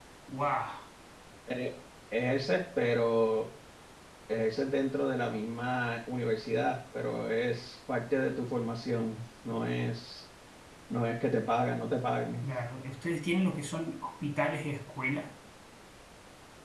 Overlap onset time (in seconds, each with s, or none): none